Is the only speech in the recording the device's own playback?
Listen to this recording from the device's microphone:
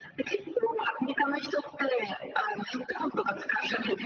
Yes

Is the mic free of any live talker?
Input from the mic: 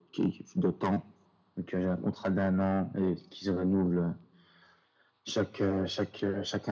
Yes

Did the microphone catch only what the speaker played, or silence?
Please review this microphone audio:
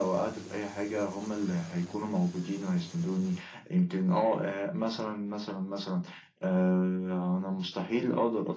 Yes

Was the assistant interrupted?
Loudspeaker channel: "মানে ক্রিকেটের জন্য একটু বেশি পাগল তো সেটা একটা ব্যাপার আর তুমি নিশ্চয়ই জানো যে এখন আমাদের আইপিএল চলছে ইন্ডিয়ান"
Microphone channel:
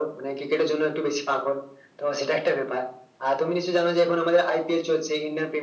No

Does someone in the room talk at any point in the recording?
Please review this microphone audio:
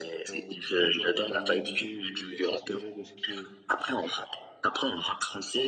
Yes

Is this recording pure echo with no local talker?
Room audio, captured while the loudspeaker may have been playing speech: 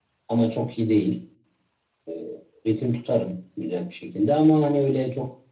No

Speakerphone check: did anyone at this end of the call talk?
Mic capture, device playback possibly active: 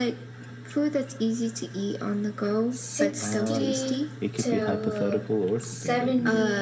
Yes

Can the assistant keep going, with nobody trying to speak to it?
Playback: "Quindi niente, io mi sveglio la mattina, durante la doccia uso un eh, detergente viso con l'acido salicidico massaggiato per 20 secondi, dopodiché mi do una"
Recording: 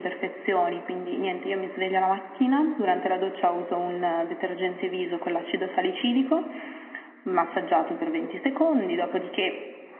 Yes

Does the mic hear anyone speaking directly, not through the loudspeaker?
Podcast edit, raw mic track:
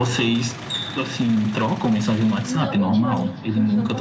Yes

